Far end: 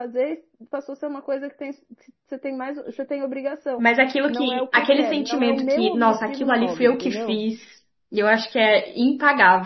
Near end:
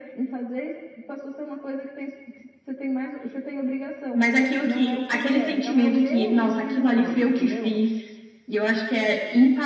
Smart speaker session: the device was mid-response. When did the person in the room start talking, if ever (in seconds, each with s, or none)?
none